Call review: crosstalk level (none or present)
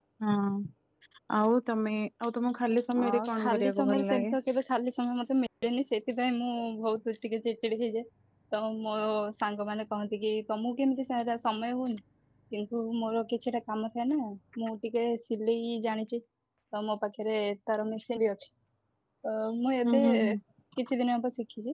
present